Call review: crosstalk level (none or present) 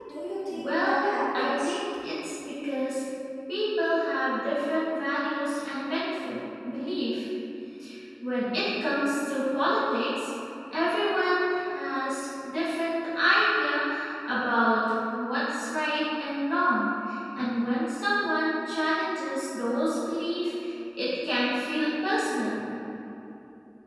present